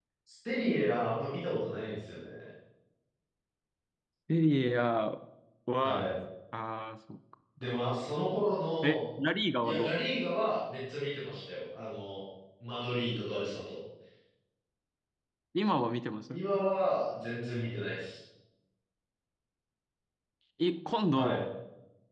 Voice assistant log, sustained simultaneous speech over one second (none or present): none